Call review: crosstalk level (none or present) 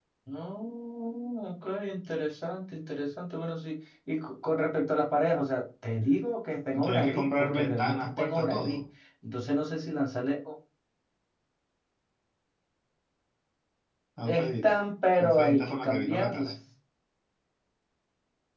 present